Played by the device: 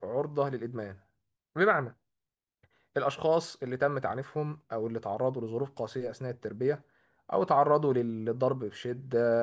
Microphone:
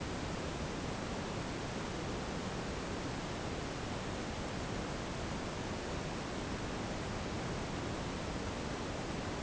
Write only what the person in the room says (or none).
none